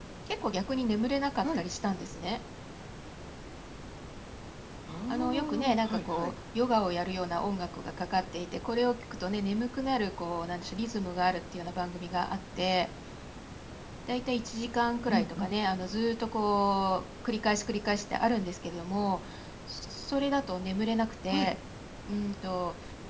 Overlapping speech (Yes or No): Yes